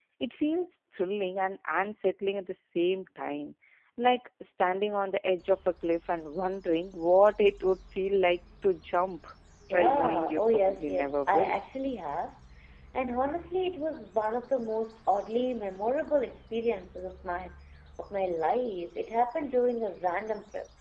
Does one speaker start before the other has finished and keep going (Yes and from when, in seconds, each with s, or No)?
Yes, from 9.7 s